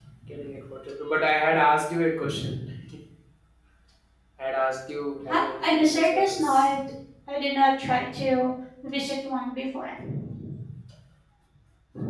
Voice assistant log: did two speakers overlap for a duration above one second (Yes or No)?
Yes